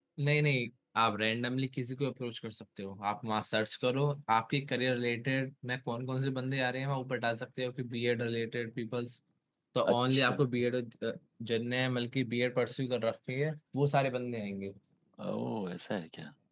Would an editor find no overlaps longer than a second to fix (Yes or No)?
Yes